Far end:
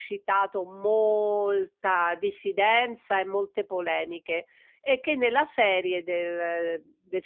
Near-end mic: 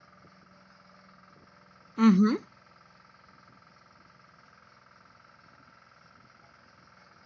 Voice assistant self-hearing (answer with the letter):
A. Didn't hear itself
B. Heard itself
A